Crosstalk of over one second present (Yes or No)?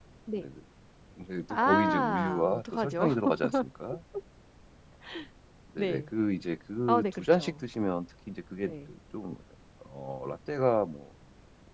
Yes